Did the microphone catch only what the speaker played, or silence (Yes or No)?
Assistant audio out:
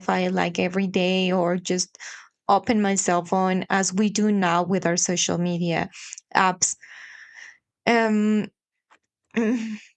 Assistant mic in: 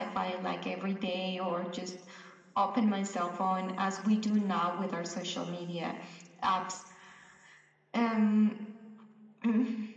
Yes